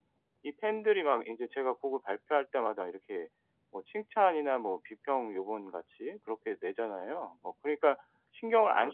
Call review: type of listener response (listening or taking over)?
taking over